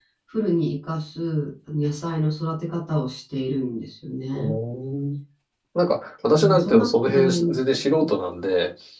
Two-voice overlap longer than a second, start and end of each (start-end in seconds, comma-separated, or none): 6.3-7.6